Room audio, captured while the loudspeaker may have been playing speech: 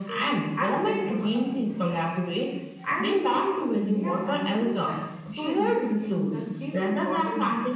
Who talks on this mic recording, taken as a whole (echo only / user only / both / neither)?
both